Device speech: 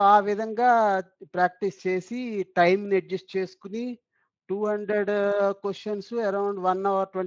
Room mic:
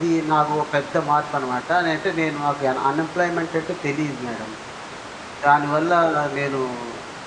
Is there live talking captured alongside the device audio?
Yes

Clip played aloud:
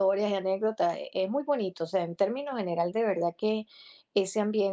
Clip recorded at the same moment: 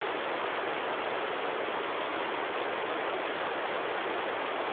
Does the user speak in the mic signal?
No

